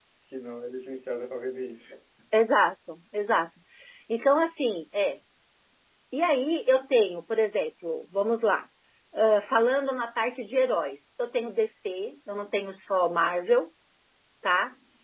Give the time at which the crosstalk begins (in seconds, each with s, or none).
none